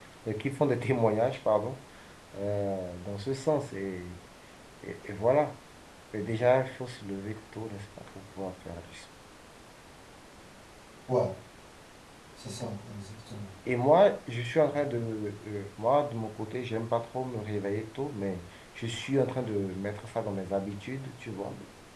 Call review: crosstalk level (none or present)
none